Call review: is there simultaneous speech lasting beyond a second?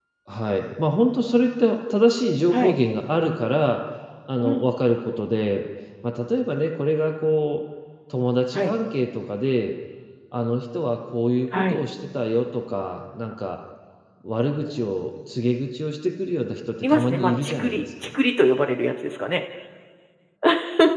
Yes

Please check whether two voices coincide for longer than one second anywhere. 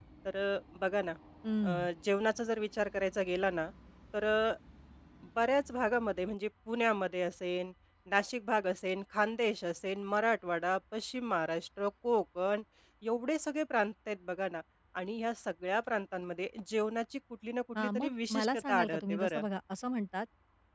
Yes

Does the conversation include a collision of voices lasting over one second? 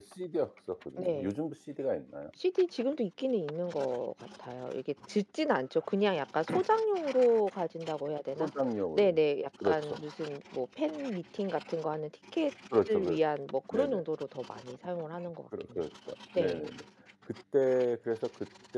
No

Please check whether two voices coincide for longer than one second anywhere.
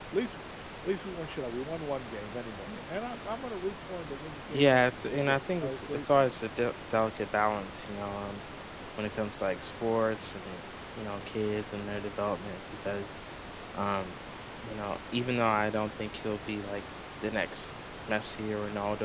Yes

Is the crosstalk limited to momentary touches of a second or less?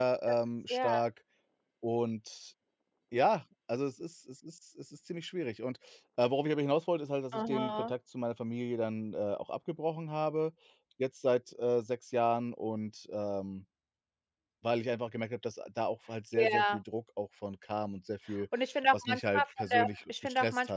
No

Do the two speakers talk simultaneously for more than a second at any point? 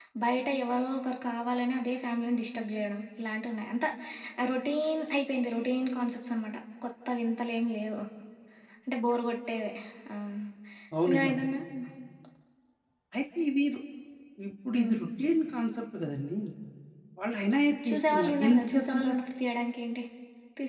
Yes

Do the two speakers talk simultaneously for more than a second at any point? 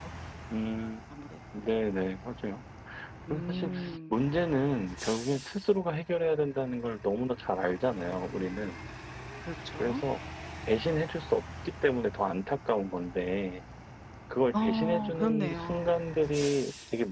Yes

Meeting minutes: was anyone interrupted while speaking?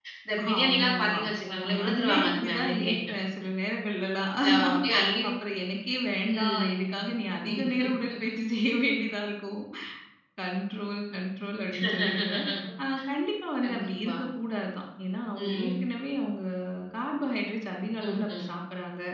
Yes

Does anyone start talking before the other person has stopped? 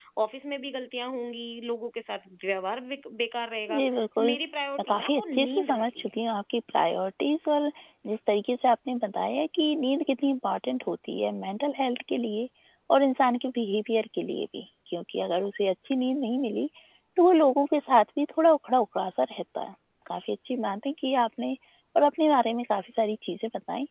Yes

